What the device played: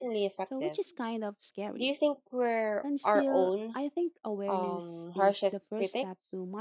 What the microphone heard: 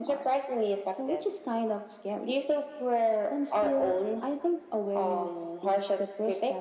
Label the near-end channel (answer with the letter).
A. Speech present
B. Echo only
B